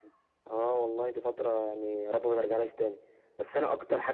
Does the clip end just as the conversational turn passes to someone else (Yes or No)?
No